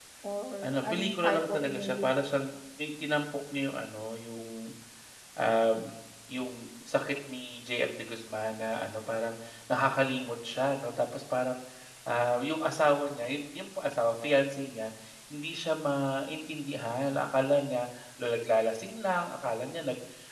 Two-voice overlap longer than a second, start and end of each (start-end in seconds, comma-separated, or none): 0.6-2.1